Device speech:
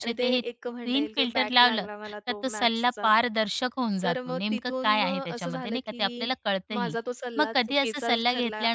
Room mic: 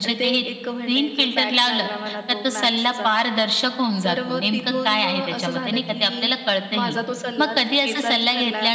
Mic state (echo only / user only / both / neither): echo only